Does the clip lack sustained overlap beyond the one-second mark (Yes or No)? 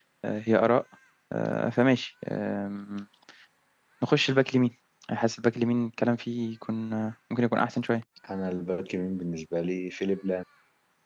Yes